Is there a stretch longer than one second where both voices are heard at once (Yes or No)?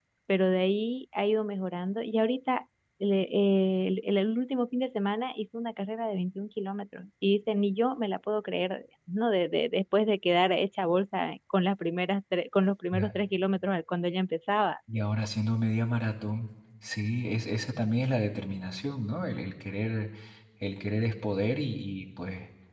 No